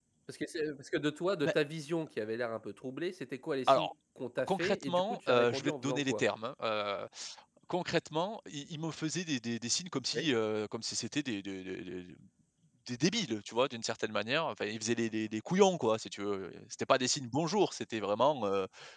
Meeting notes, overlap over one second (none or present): present